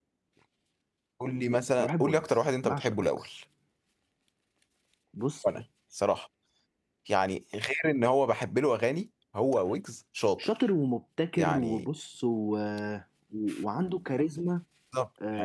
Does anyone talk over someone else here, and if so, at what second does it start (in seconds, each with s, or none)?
1.8 s